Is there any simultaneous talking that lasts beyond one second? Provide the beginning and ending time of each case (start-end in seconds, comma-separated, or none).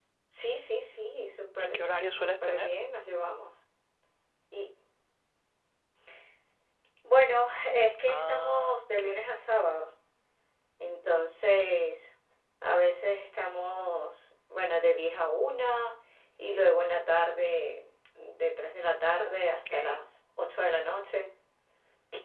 1.1-2.7, 8.1-9.3